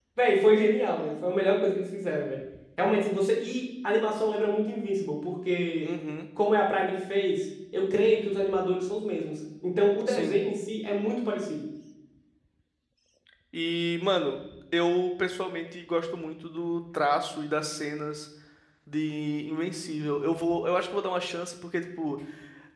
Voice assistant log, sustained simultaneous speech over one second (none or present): none